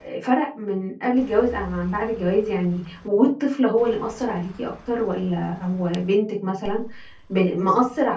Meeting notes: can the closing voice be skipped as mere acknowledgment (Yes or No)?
Yes